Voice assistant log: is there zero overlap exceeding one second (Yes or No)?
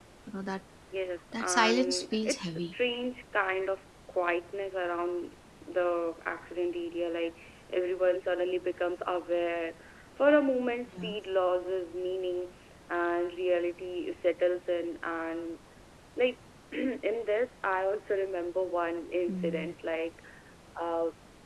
No